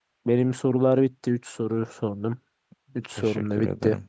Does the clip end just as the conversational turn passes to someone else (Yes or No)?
Yes